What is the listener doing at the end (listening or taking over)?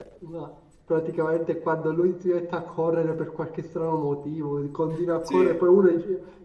listening